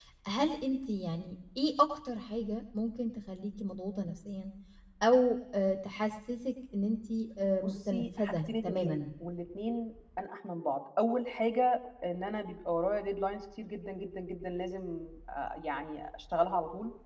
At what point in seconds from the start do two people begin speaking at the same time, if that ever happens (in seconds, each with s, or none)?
7.6 s